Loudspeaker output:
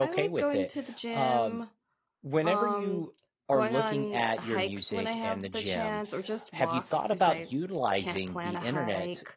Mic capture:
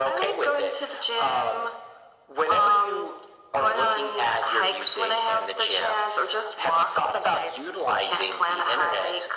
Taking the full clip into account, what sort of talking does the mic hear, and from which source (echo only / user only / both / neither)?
echo only